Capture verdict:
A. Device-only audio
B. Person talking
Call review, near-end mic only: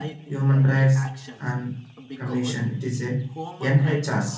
B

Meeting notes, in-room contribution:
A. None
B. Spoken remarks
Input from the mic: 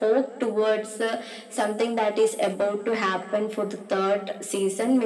A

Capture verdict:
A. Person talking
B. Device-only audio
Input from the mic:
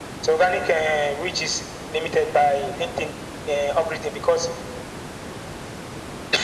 B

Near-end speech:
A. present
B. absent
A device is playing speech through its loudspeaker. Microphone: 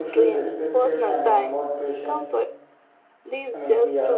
A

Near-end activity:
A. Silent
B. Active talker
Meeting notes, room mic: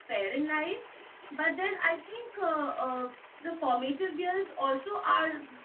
B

